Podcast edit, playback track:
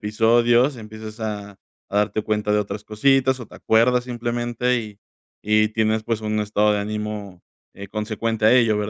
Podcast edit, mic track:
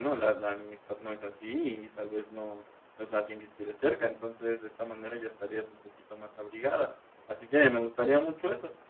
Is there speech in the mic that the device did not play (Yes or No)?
Yes